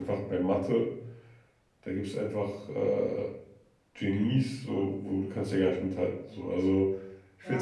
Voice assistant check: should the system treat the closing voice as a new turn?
Yes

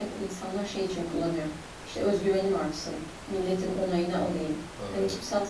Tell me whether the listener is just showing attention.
Yes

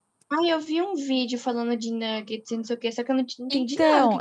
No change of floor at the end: No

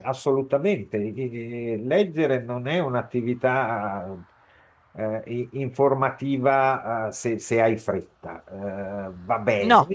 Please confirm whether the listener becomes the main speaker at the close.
No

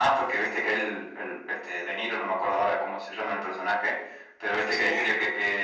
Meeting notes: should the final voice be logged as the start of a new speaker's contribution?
No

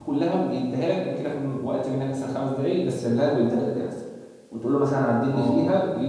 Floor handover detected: No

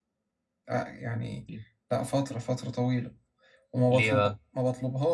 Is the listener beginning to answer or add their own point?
No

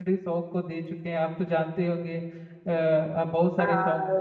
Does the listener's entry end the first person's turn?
Yes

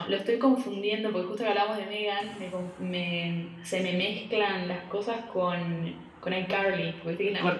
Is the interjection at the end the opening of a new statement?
Yes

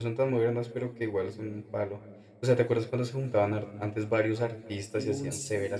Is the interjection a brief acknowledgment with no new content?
No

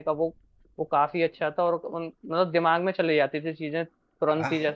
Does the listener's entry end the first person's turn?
Yes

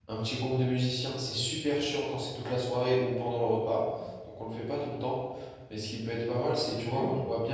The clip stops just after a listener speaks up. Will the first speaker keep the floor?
Yes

